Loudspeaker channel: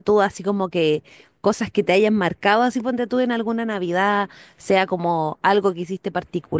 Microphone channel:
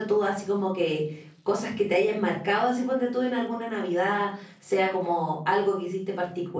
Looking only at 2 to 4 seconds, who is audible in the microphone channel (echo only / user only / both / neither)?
echo only